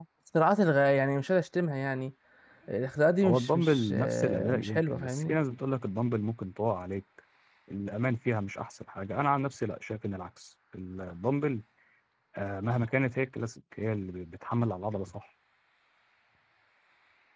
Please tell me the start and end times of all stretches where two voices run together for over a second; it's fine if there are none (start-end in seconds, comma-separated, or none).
3.2-5.3